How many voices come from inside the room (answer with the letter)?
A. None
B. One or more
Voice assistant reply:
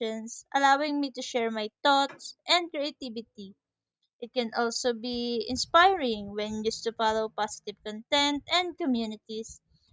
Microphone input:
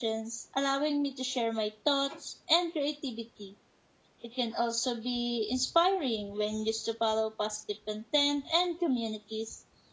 A